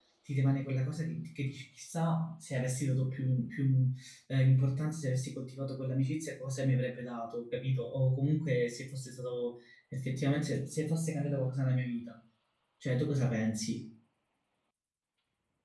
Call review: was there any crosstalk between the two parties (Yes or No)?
No